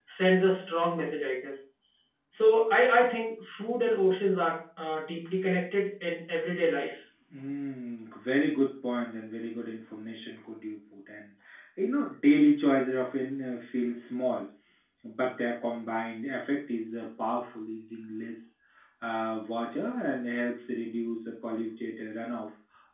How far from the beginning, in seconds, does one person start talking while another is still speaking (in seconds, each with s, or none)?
none